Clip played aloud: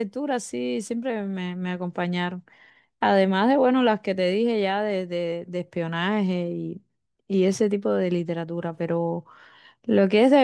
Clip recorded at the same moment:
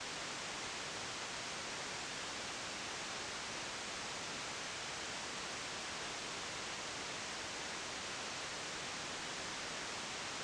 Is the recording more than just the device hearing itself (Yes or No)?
No